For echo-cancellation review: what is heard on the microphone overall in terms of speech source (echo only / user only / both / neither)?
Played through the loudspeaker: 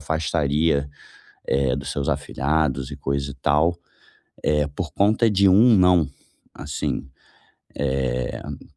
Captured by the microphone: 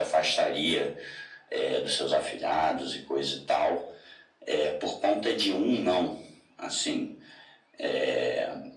echo only